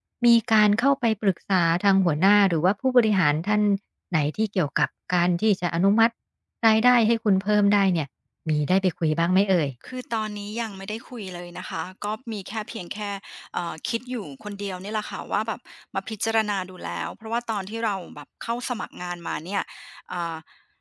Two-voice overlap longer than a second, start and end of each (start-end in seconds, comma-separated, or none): none